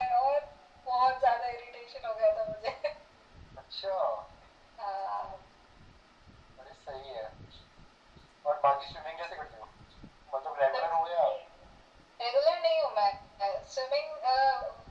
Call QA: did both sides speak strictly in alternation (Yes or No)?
Yes